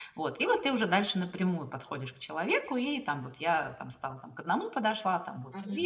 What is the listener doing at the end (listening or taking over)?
taking over